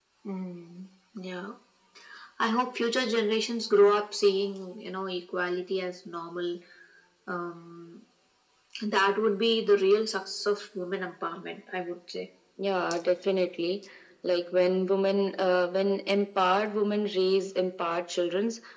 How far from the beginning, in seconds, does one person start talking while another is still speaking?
none

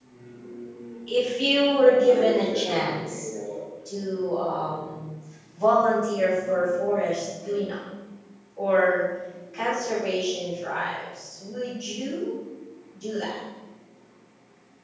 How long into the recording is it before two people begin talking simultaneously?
2.1 s

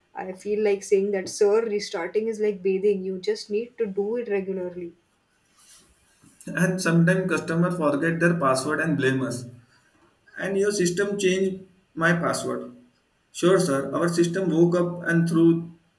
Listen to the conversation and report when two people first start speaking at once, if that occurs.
none

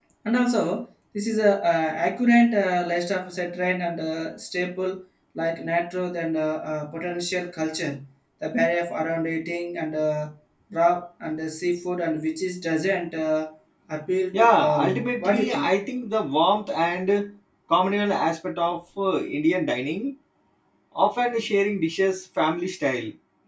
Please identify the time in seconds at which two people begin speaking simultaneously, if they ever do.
14.3 s

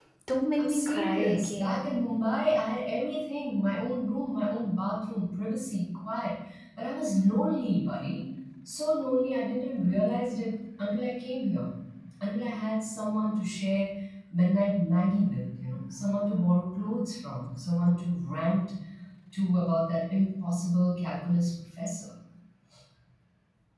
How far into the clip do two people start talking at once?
0.6 s

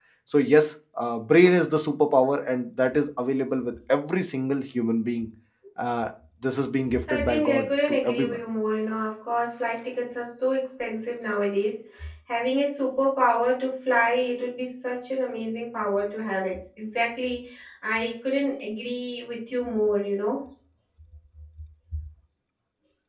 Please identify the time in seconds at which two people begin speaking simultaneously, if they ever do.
6.9 s

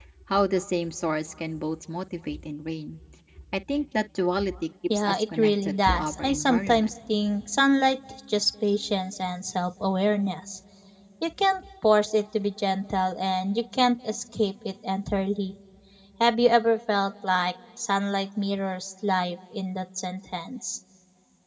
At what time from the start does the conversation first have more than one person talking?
4.9 s

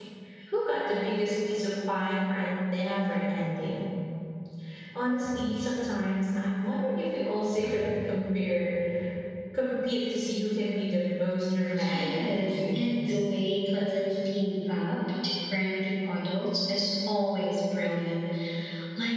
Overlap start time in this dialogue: 11.8 s

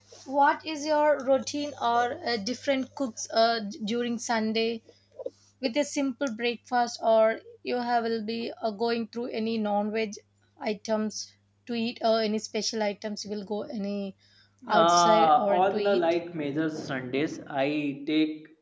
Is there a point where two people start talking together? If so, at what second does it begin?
14.7 s

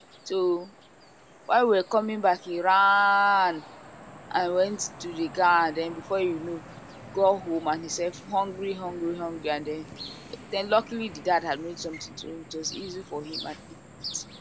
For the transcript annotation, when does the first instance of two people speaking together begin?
none

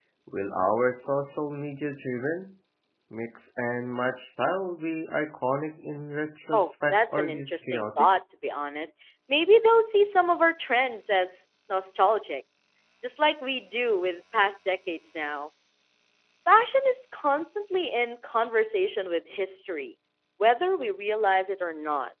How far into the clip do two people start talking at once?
6.5 s

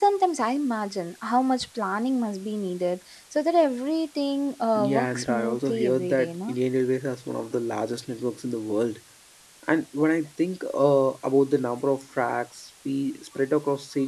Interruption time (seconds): 4.8 s

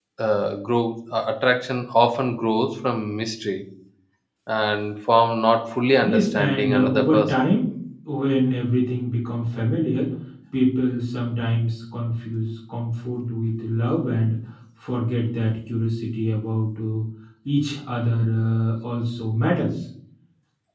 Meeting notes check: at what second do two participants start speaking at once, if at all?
6.0 s

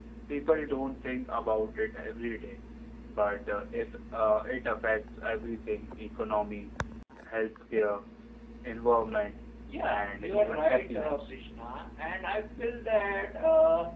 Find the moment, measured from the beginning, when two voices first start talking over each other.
10.0 s

